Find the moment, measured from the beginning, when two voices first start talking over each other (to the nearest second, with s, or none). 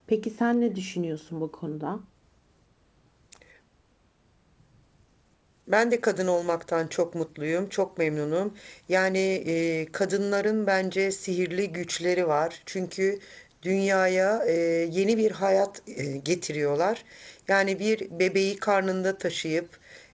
none